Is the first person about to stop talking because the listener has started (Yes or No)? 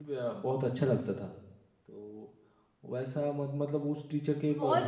Yes